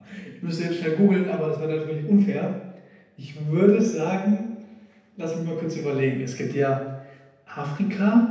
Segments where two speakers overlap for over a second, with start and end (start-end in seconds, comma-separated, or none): none